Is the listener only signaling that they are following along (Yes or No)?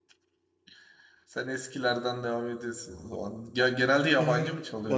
No